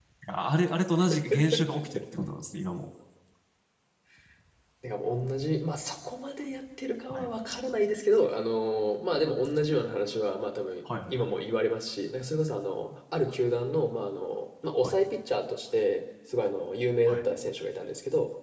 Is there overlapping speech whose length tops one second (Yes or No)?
No